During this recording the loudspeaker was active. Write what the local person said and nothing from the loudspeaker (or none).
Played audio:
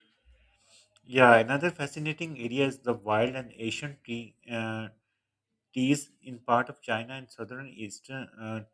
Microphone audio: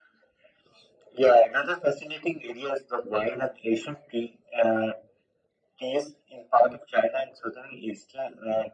none